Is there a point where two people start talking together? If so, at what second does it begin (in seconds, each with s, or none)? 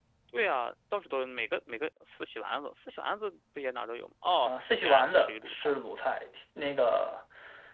4.4 s